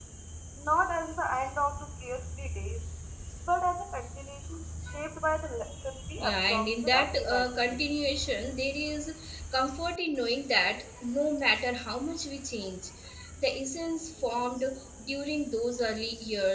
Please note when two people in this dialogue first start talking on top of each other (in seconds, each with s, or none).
6.2 s